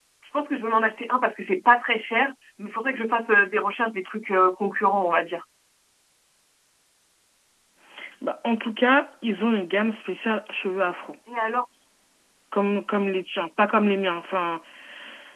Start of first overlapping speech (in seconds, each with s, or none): none